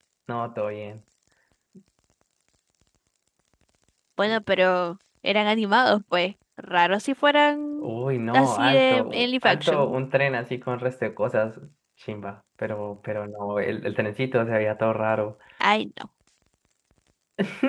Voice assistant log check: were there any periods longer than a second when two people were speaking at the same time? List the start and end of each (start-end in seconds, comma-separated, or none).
8.3-9.9